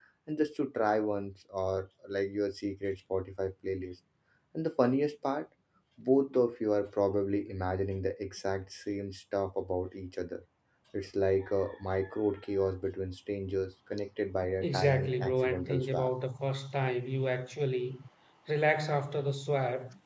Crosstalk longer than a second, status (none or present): present